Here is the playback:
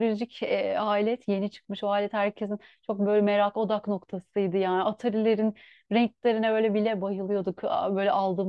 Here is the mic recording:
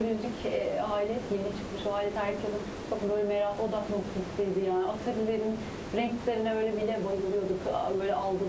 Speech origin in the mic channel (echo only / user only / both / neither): echo only